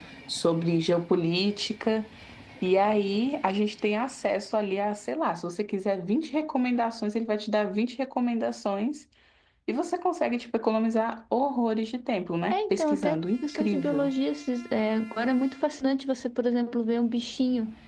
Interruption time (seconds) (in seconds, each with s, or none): 12.5 s